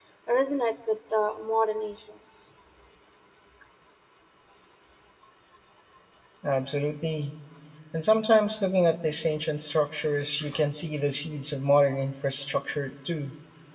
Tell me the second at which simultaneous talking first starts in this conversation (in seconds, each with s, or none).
none